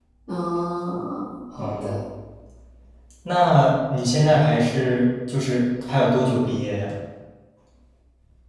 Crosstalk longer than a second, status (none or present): none